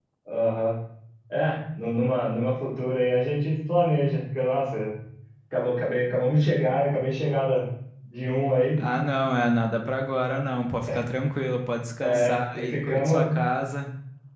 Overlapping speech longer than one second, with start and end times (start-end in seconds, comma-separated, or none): 12.0-13.2